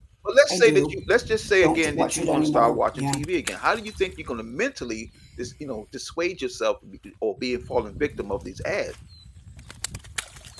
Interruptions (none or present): present